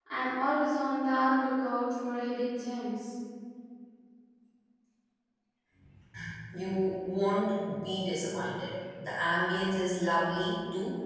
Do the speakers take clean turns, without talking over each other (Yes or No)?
Yes